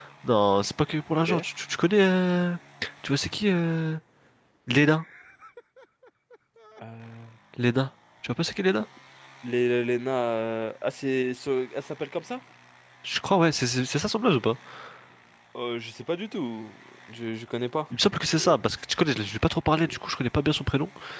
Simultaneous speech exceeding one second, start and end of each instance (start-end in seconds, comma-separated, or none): none